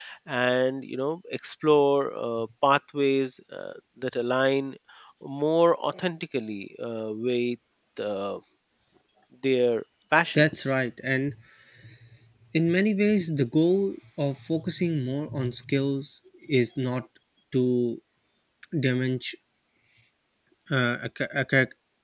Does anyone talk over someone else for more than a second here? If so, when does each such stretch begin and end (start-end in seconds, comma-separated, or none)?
none